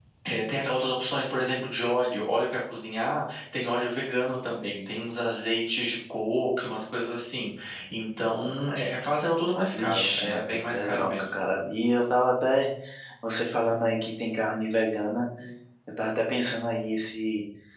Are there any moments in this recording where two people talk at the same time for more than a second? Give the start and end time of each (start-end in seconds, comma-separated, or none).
9.7-11.4